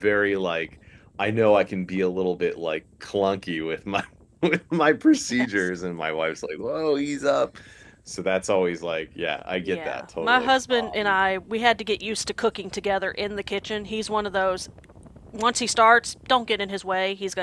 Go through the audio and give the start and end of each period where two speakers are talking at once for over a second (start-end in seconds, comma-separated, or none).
9.7-11.2